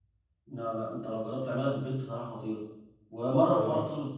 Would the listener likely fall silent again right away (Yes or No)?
Yes